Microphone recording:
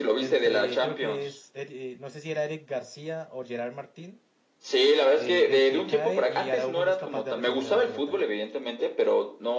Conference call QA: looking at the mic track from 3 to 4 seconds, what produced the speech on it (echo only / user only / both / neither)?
user only